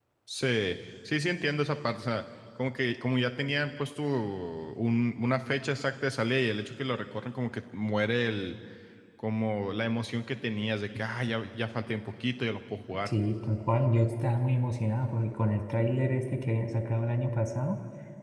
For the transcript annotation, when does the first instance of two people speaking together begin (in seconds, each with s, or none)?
none